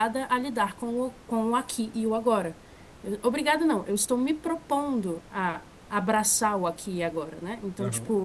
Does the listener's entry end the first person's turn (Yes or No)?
No